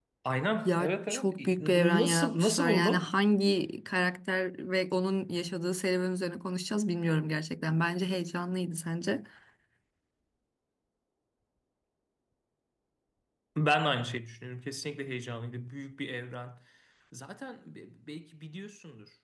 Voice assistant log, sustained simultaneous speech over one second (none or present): present